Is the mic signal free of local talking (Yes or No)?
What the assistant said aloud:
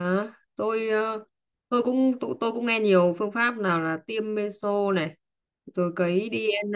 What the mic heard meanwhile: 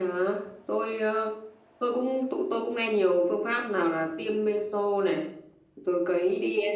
Yes